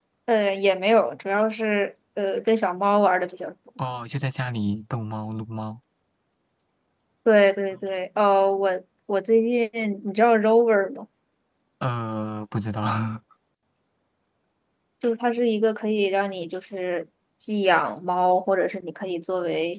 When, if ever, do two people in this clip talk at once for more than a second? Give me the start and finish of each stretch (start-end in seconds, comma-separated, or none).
none